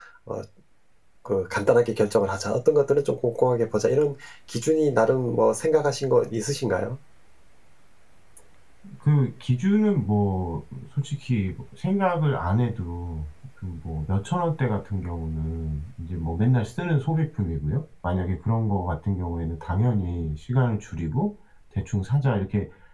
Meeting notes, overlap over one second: none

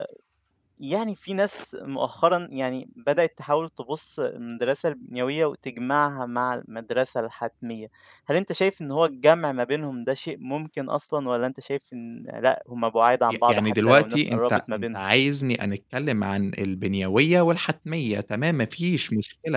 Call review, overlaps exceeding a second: present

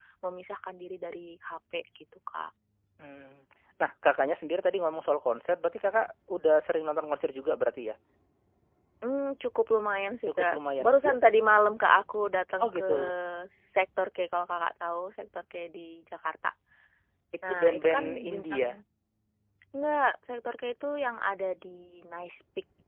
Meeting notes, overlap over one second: present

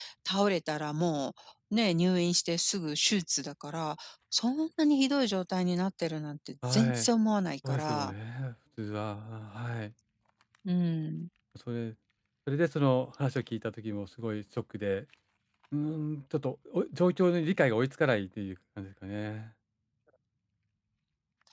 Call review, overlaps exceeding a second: none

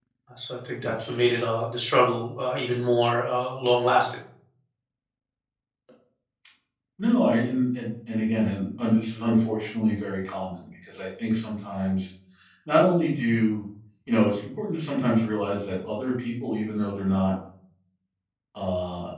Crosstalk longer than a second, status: none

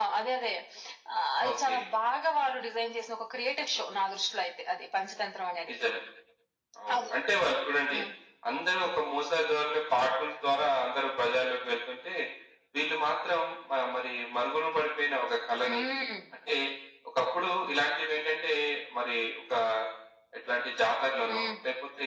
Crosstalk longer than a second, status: none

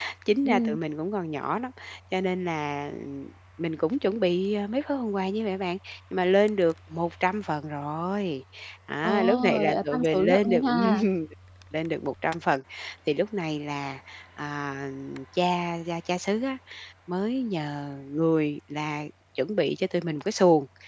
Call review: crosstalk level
present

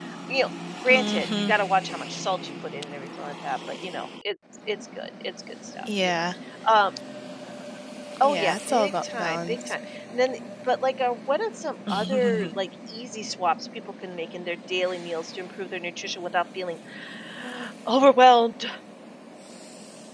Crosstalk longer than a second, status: present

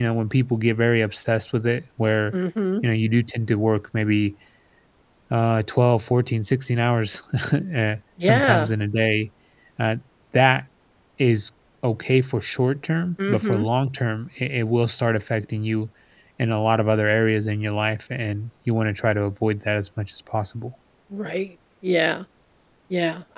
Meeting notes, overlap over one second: none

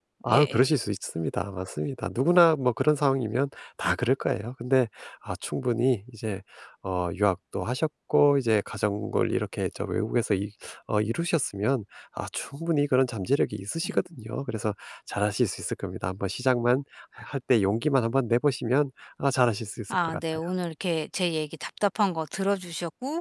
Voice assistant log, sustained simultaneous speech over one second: none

